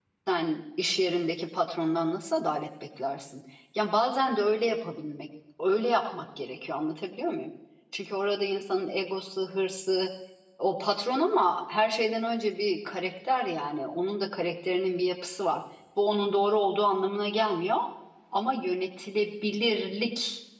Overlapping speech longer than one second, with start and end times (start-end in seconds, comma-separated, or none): none